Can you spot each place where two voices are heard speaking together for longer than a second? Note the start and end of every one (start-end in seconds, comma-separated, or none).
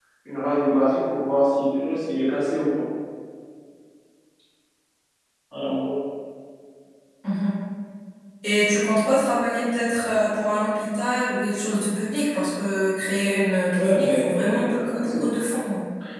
13.7-15.2